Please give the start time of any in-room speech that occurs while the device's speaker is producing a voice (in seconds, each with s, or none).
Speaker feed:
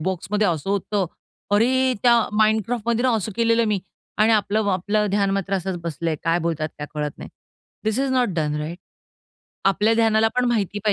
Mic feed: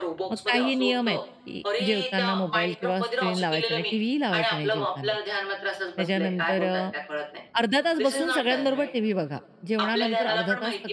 0.3 s